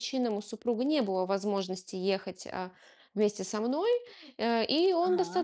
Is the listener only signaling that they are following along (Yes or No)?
Yes